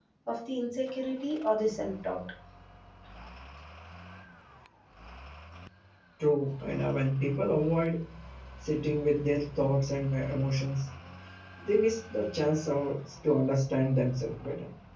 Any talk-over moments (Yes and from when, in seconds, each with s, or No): No